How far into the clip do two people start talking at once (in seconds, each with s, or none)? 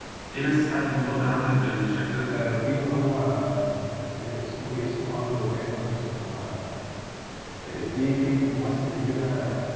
none